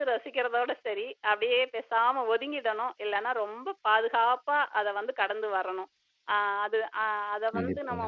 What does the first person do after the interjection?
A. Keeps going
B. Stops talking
A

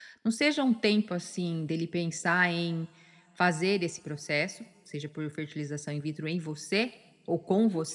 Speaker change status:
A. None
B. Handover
B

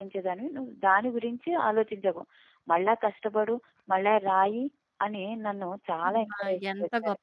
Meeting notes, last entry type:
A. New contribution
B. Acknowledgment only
A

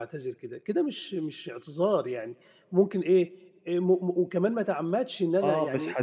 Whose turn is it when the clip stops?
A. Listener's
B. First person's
A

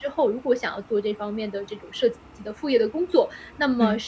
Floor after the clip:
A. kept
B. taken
A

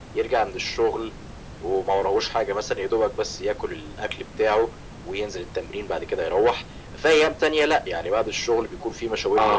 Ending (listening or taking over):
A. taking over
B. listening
A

